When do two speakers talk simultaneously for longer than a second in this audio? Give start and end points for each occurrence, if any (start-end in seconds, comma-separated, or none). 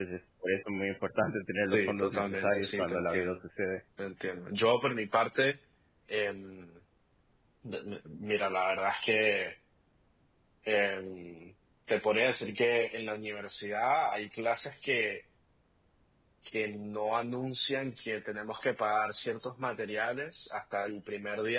1.7-3.4